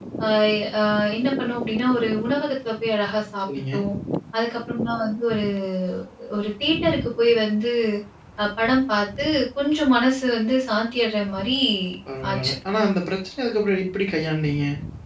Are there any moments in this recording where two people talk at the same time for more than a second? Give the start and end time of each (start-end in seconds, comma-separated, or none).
none